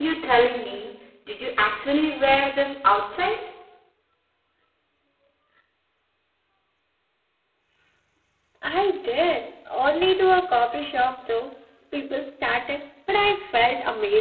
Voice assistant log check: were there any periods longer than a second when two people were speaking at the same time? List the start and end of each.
none

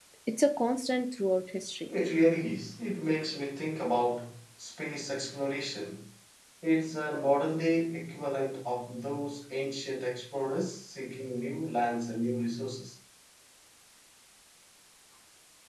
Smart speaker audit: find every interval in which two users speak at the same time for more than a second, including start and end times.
none

